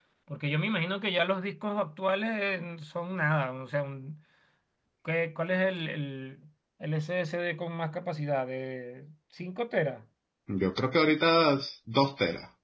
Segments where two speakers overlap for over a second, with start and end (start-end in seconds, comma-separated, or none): none